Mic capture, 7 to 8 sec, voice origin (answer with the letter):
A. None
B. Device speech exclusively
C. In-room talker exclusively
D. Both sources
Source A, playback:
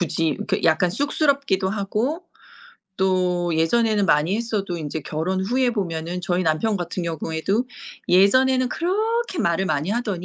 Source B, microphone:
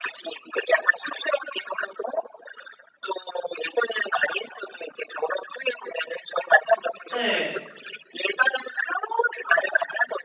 D